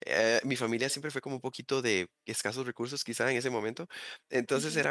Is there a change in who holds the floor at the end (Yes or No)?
No